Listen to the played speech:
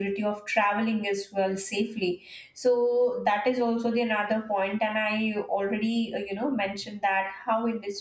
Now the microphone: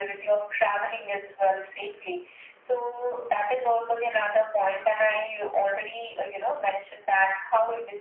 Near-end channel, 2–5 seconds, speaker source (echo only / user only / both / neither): echo only